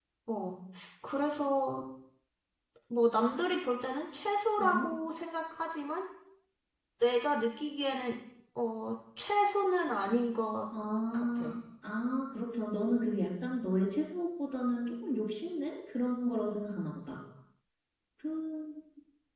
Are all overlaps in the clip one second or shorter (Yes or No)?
Yes